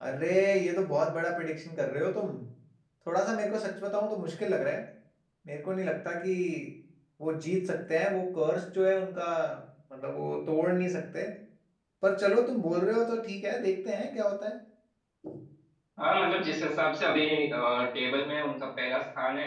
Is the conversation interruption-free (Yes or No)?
Yes